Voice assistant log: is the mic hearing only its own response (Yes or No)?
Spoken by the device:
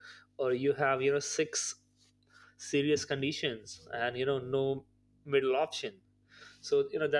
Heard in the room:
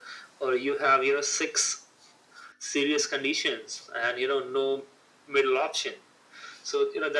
Yes